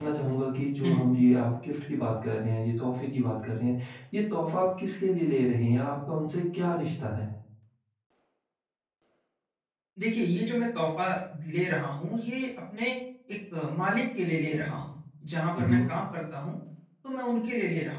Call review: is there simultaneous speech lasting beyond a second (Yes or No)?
No